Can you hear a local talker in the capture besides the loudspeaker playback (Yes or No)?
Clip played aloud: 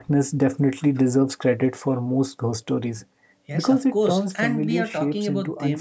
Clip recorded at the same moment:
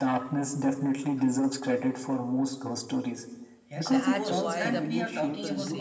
Yes